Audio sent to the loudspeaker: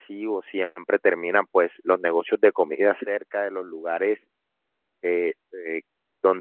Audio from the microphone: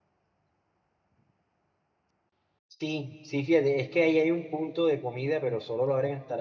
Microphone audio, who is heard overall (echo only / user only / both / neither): user only